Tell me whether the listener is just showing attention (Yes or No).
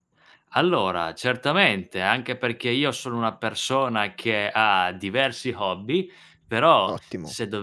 Yes